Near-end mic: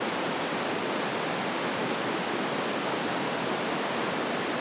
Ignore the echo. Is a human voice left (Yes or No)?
No